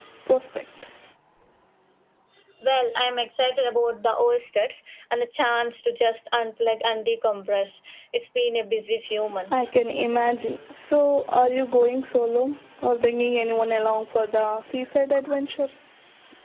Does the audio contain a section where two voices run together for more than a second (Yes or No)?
No